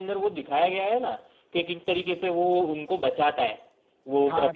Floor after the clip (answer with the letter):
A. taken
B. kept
A